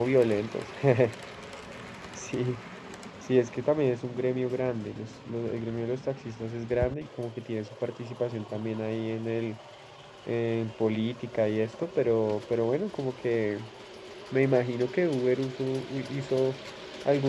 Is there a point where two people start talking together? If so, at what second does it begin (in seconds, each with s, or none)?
none